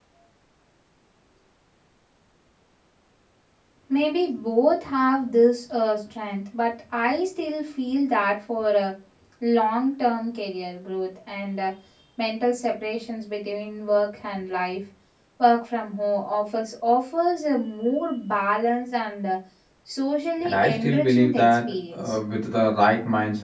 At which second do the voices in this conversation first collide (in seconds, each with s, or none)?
20.4 s